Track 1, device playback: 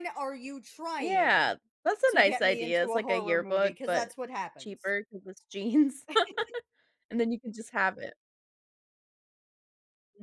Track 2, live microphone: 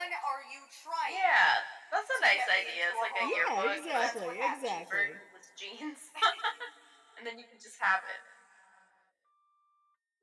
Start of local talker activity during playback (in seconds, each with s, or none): 3.2 s